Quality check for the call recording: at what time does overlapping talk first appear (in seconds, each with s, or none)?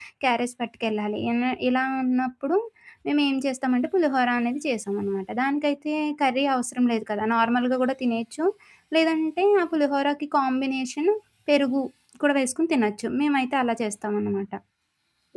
none